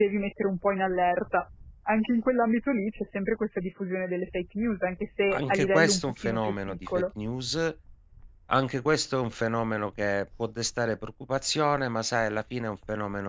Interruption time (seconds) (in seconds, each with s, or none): 5.3 s